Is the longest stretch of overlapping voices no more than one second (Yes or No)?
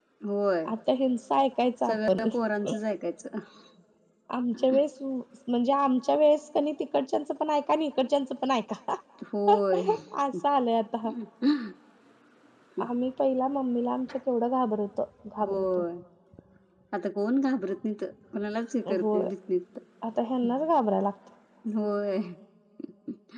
Yes